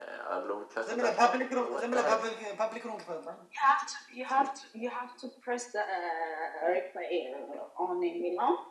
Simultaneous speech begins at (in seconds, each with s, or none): 0.9 s